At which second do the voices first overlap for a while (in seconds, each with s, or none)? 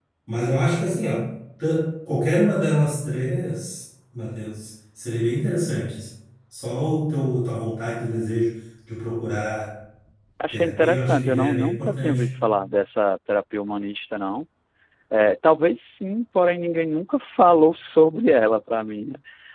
10.5 s